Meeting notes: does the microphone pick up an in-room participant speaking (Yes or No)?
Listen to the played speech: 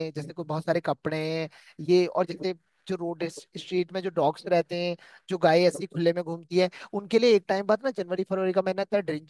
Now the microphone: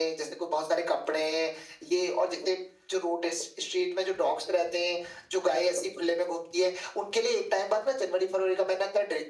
No